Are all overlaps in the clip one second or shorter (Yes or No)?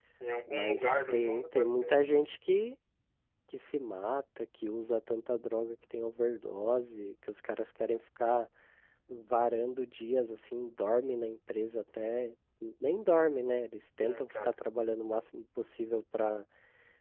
No